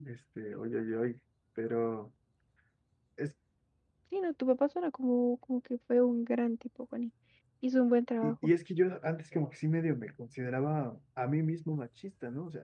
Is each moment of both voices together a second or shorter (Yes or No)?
Yes